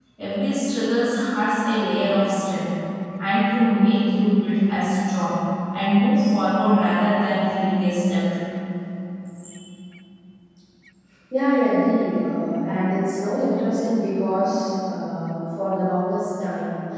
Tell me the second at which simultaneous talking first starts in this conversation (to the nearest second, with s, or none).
none